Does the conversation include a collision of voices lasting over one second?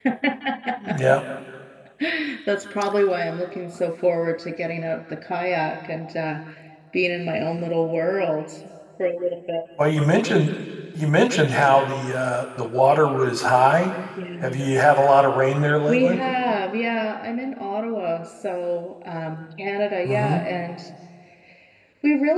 No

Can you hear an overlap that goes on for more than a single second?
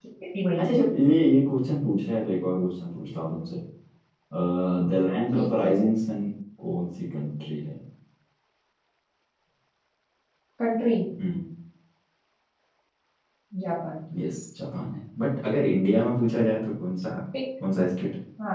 No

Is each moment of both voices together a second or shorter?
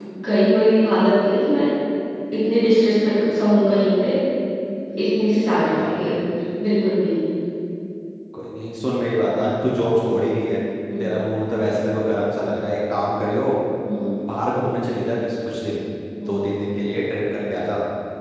Yes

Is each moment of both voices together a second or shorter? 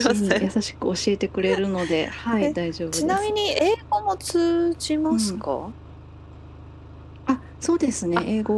Yes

